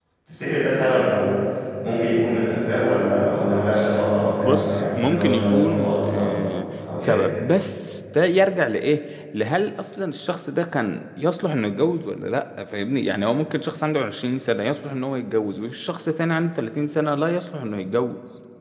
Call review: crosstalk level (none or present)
present